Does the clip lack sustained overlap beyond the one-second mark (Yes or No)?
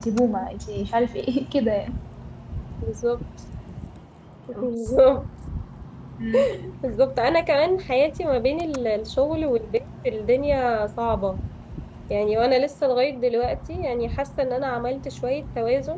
Yes